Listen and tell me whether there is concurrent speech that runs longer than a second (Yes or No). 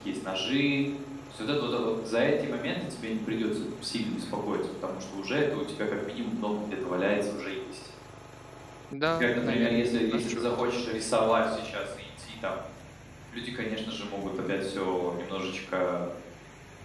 Yes